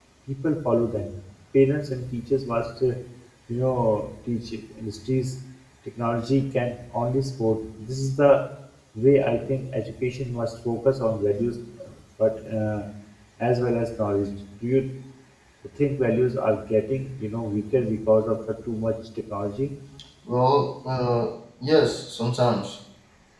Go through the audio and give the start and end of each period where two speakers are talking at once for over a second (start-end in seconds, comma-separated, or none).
none